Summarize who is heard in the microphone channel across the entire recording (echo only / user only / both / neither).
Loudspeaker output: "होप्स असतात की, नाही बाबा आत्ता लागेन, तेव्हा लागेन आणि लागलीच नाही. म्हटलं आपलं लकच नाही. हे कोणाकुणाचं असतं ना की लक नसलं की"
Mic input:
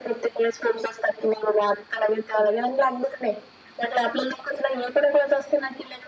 echo only